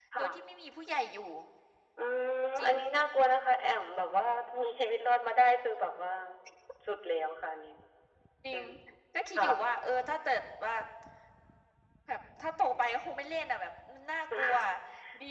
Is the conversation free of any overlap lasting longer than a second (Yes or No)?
Yes